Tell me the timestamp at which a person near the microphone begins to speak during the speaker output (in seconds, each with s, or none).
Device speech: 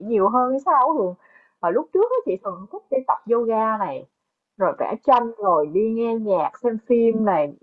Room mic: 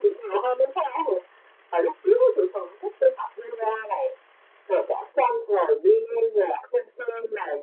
none